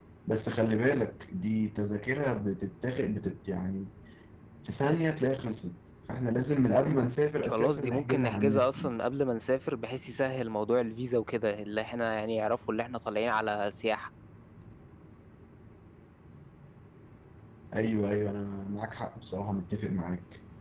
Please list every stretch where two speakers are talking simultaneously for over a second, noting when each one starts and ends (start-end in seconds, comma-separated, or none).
7.4-8.9